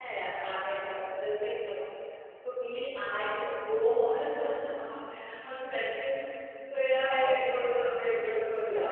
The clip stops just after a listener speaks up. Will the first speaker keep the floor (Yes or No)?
No